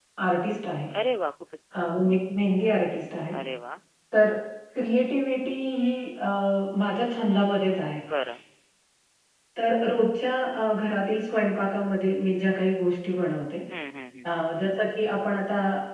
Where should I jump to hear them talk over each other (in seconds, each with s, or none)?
none